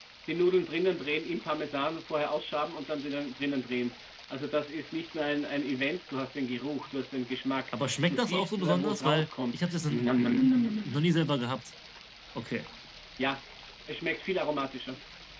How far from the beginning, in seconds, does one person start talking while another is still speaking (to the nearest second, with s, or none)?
8 s